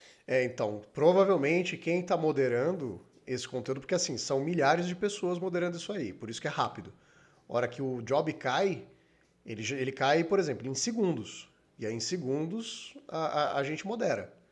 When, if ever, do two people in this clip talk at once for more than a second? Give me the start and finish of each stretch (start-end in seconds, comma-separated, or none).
none